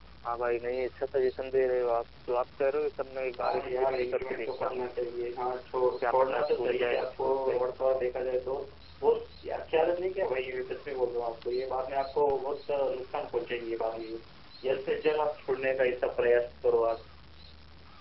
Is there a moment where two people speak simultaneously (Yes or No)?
Yes